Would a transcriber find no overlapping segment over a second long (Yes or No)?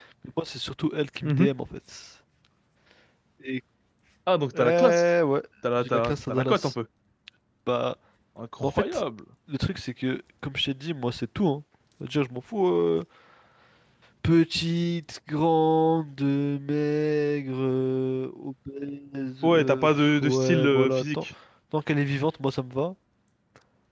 No